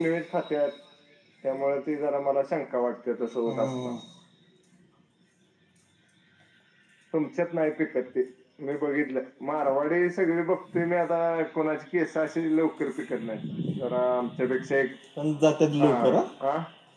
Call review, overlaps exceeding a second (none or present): none